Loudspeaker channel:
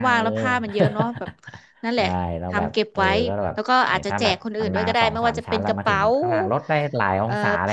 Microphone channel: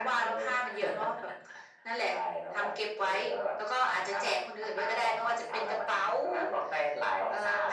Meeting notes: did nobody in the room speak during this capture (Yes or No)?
Yes